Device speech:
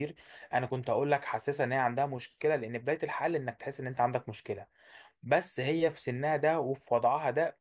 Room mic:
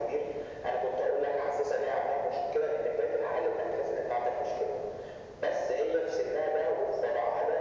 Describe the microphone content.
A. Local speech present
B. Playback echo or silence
B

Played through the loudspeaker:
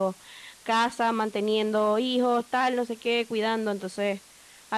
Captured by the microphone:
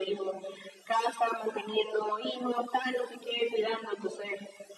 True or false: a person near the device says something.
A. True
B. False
B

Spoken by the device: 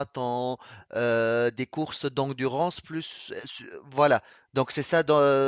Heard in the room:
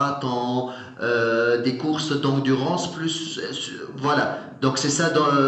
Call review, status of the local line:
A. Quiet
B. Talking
A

